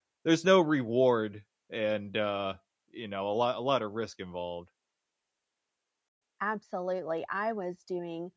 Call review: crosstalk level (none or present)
none